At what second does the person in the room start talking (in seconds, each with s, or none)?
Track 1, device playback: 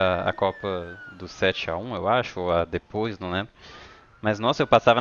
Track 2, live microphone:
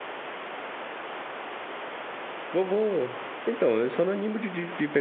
2.5 s